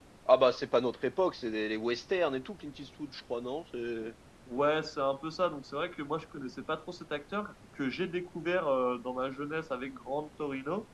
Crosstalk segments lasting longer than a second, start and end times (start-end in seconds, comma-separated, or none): none